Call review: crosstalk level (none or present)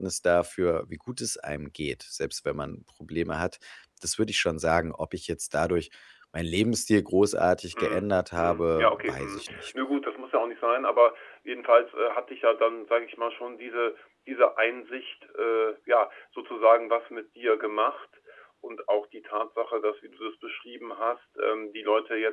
present